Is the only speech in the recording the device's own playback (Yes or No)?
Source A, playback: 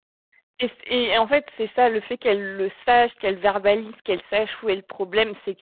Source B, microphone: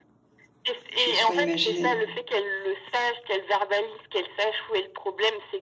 No